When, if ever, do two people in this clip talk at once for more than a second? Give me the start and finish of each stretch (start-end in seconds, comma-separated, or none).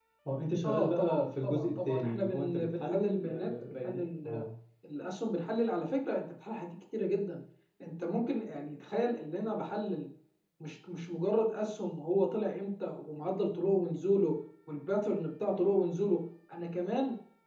0.6-4.4